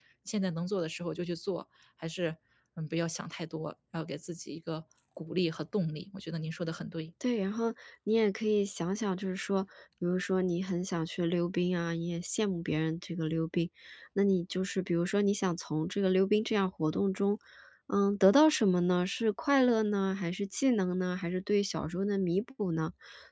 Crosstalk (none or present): none